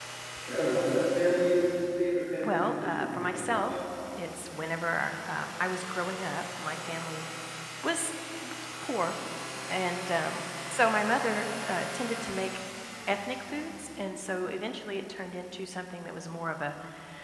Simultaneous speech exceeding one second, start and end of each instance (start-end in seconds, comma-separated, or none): 2.4-3.8